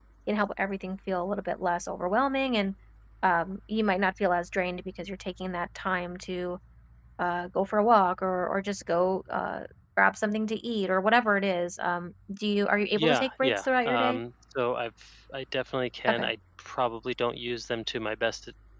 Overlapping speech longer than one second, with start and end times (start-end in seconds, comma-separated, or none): 12.9-14.2